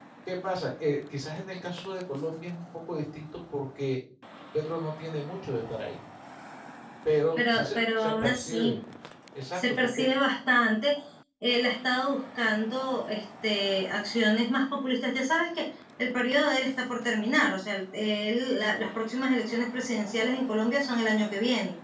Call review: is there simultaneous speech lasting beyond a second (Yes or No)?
Yes